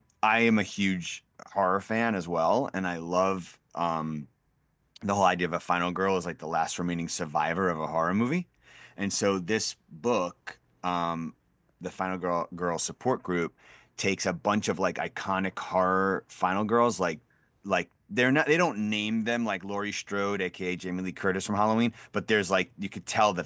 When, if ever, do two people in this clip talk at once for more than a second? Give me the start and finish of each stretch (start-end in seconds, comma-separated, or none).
none